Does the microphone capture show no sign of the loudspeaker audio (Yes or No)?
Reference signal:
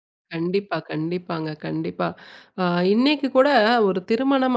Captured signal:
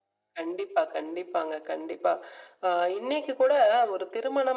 No